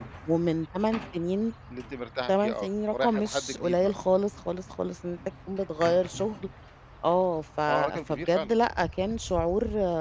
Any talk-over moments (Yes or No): Yes